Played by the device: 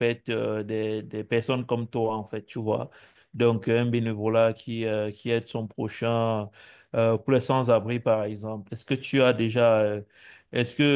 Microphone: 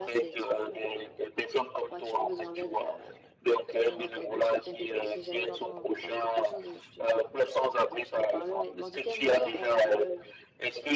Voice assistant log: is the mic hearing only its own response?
No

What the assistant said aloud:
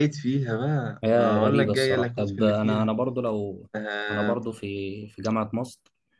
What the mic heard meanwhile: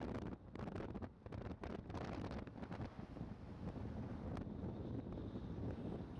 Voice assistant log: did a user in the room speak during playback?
No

